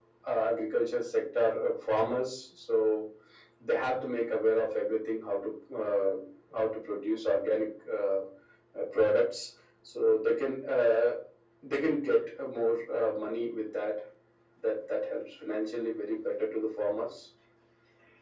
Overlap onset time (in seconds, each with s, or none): none